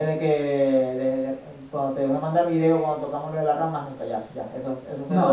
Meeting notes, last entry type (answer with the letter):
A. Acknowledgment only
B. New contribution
B